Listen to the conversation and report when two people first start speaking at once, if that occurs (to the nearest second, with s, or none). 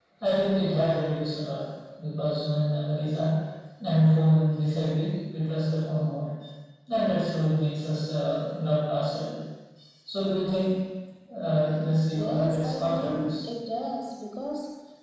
12 s